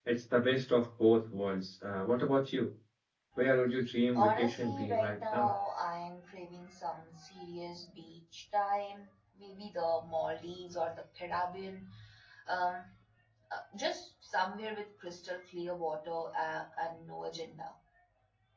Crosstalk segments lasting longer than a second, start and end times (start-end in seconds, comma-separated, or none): 4.2-5.5